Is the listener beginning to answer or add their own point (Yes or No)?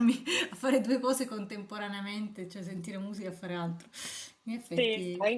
Yes